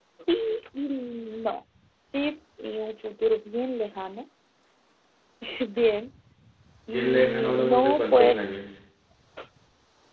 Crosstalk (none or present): present